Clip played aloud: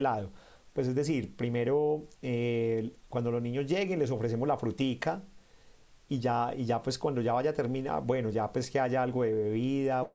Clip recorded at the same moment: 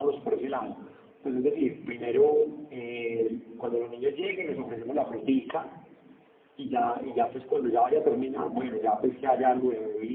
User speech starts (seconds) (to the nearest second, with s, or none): none